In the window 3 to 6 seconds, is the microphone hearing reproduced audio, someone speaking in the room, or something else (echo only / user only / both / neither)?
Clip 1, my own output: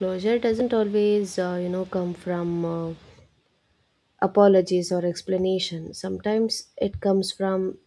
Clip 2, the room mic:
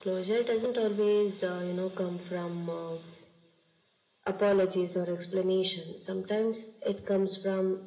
echo only